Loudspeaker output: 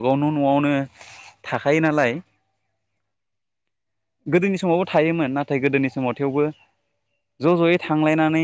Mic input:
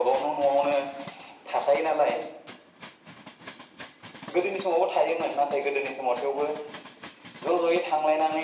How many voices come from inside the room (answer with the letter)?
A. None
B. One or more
A